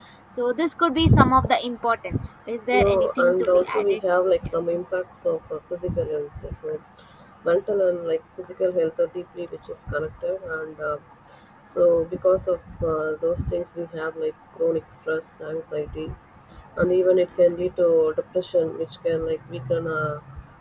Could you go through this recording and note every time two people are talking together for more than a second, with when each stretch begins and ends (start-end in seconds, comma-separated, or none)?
2.7-4.0